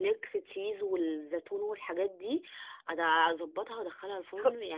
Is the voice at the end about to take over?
Yes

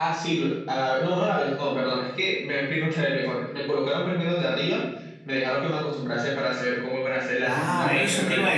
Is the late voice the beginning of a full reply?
Yes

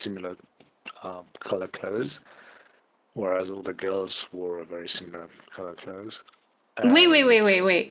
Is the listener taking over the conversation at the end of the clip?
Yes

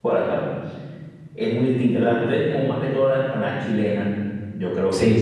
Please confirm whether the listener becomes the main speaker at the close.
Yes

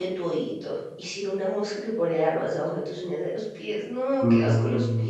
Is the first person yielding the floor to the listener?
Yes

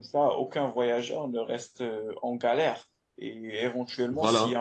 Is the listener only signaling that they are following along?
Yes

